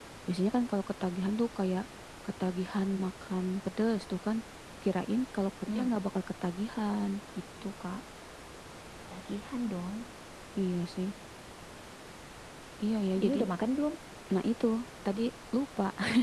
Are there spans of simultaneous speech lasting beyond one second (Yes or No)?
No